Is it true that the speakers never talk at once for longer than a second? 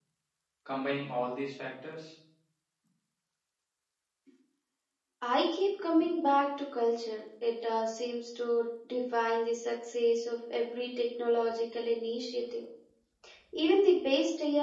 Yes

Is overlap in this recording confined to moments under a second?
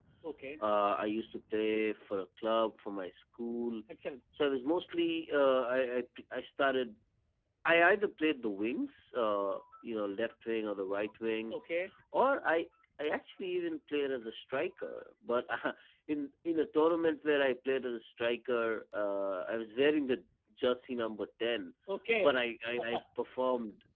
Yes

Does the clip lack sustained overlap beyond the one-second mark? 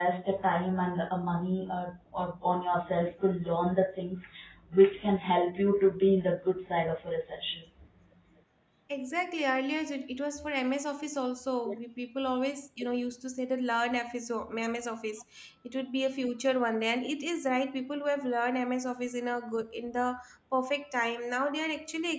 Yes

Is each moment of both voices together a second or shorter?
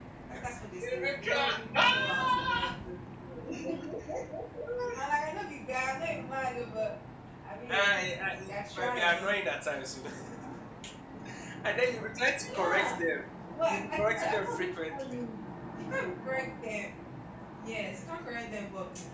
No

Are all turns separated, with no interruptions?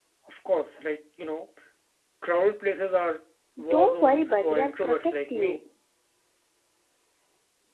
No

